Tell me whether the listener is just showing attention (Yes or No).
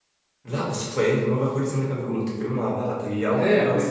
No